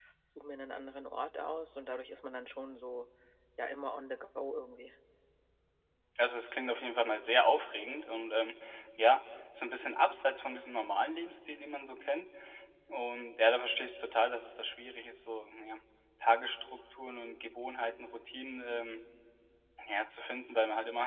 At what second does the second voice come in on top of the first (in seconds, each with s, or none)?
none